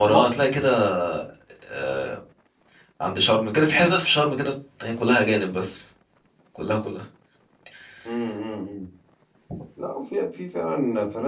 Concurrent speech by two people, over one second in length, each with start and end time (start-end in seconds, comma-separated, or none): none